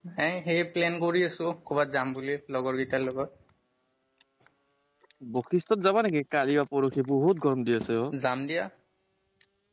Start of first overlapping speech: none

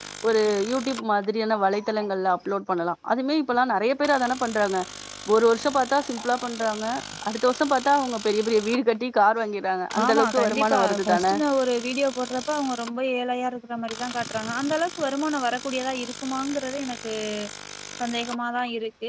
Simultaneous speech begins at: 10 s

